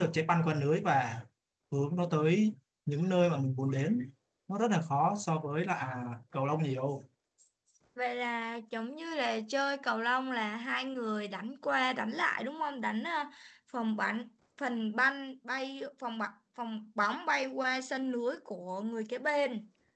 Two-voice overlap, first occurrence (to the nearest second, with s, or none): none